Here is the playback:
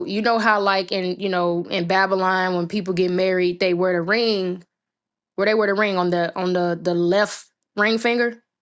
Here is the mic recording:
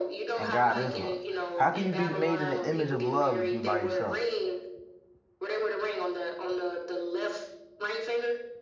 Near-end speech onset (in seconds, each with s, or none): 0.4 s